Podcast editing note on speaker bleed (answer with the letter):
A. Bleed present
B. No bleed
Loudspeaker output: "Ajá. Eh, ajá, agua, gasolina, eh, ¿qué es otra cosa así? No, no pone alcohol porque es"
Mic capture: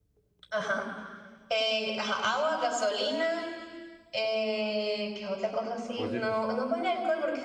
A